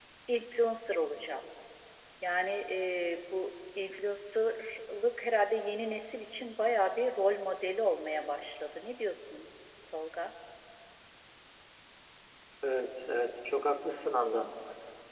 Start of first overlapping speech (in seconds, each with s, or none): none